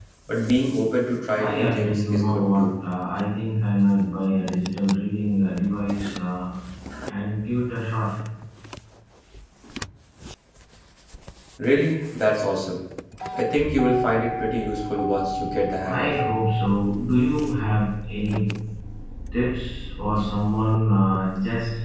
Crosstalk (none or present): present